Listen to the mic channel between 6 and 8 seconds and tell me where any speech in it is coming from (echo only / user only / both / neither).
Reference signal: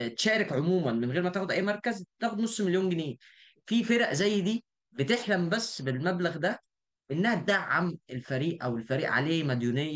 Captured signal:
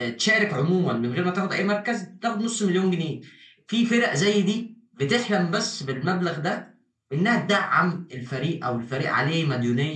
echo only